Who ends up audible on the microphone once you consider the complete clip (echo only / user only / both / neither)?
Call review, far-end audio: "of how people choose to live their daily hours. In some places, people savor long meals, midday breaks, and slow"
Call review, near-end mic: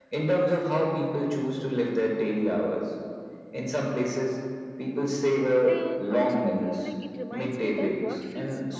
both